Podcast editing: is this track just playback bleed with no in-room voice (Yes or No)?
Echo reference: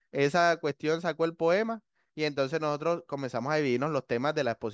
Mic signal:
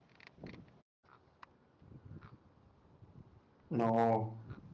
No